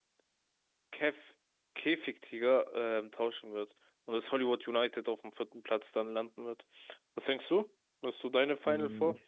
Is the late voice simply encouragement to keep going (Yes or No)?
No